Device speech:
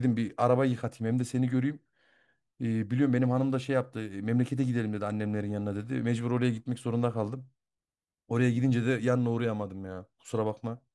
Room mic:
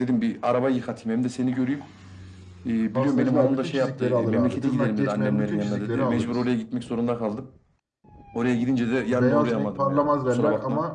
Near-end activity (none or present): present